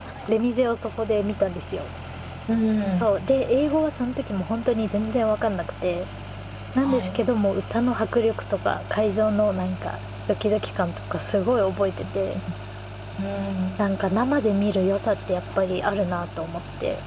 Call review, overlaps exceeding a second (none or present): none